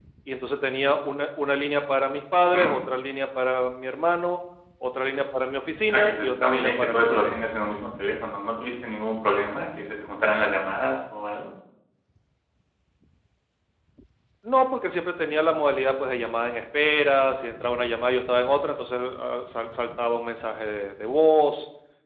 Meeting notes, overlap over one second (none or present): present